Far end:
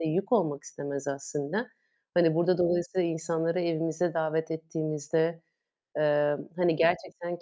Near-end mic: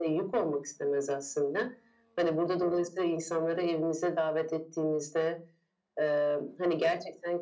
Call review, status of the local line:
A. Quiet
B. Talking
A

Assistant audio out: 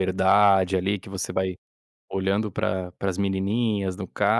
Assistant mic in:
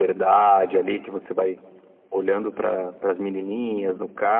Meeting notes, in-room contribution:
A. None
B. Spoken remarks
A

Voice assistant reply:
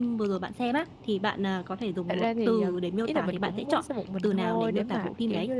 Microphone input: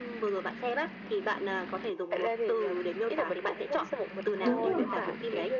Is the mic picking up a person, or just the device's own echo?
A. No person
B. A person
B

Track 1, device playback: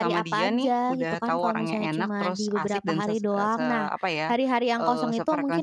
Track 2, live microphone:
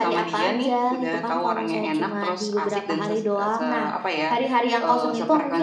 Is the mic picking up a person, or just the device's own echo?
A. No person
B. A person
A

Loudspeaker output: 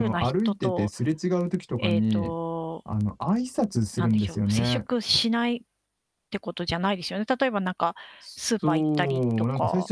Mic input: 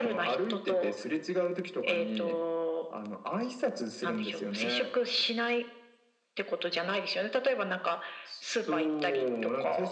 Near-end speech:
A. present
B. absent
B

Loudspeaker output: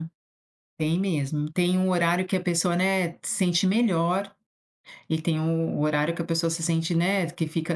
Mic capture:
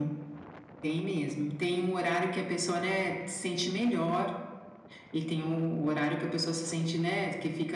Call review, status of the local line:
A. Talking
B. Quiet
B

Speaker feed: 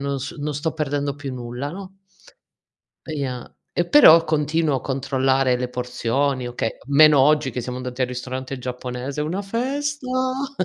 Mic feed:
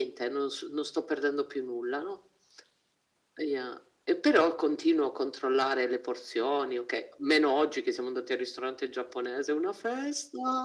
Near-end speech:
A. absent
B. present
A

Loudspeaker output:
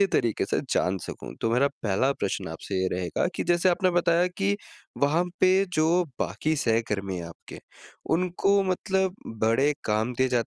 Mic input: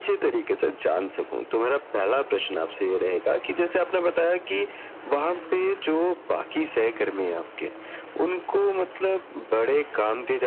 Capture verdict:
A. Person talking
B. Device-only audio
B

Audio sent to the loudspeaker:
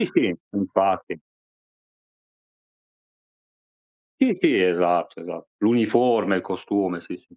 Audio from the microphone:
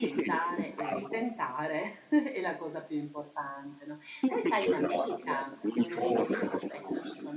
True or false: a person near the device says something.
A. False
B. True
B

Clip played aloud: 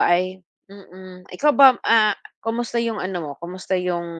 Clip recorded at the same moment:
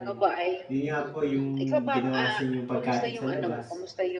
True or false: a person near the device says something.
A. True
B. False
A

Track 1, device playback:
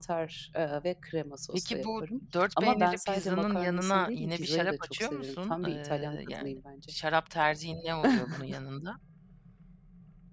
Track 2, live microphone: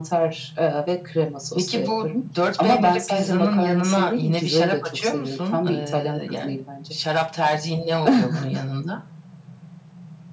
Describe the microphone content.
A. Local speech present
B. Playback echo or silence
B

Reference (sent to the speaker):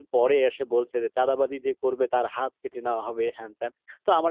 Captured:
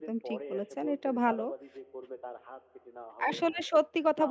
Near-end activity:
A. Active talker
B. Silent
A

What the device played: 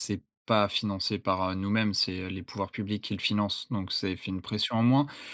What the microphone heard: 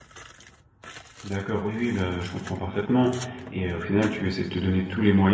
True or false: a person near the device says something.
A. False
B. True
B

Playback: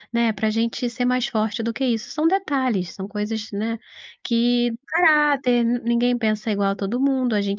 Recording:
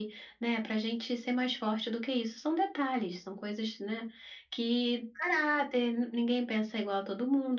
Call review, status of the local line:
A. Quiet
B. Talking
A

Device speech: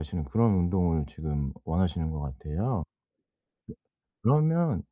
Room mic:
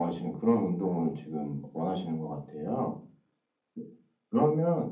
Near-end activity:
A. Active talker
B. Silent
B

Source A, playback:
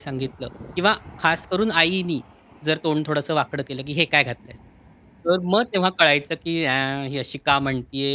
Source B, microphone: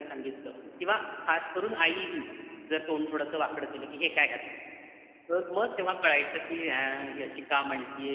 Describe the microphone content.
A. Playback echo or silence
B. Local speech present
A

